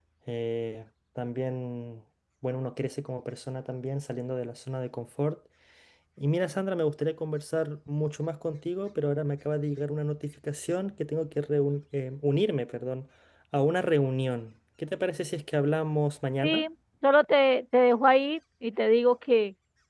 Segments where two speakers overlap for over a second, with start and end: none

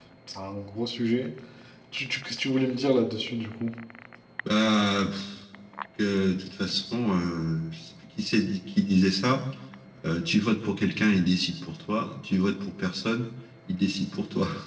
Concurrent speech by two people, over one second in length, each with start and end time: none

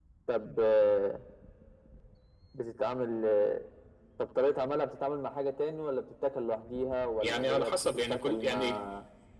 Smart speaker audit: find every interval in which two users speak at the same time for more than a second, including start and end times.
7.2-8.8

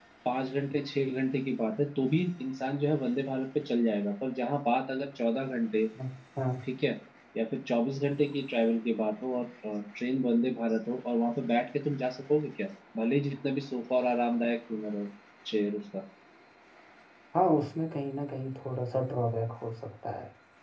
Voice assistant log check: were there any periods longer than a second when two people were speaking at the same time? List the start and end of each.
none

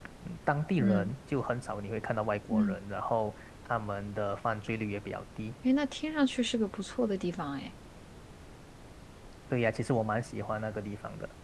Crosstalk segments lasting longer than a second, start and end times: none

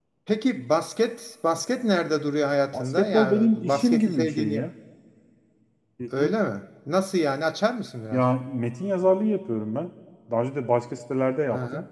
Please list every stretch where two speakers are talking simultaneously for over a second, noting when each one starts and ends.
2.7-4.7

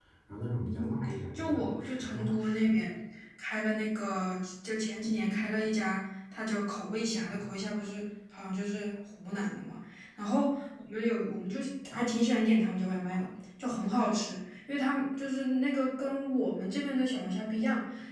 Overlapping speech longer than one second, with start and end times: 1.4-2.7

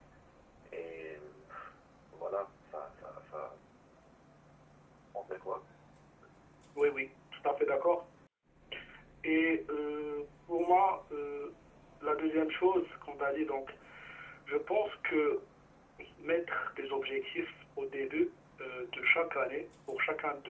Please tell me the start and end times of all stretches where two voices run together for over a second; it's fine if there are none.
none

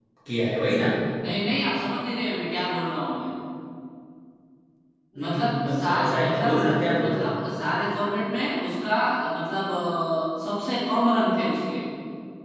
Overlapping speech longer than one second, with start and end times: 5.2-6.5

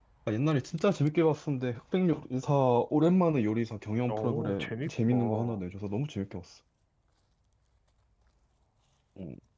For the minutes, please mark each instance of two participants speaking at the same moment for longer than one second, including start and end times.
4.1-5.6

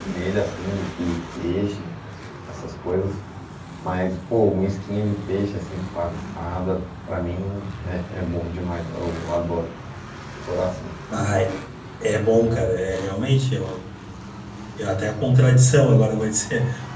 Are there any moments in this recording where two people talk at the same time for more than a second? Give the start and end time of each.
none

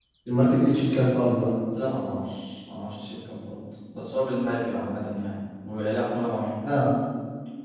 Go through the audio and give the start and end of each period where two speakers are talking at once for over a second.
none

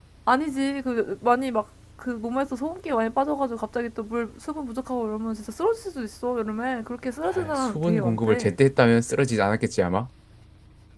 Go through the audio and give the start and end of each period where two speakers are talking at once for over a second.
7.3-8.5

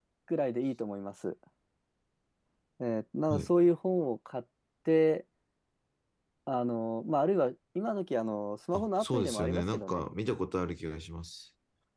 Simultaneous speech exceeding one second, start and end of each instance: 8.7-10.0

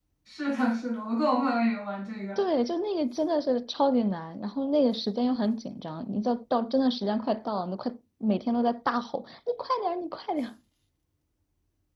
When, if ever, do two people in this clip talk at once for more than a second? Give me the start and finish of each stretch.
none

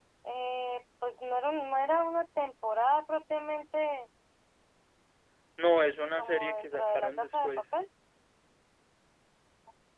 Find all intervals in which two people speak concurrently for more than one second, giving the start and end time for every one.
6.2-7.6

